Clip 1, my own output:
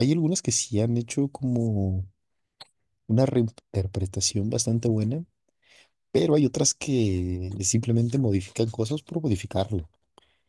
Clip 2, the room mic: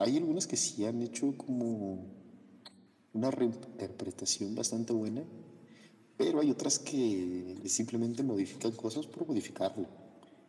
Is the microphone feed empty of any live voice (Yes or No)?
Yes